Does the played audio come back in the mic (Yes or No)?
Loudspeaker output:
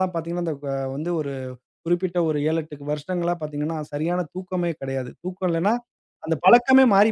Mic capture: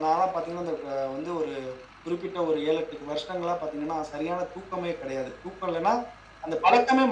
Yes